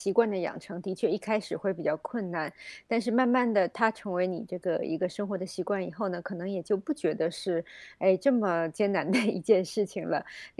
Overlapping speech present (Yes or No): No